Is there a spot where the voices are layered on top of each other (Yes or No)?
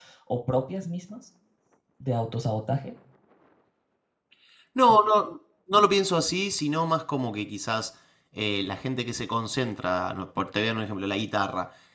No